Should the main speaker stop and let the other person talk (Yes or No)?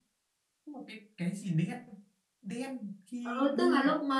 Yes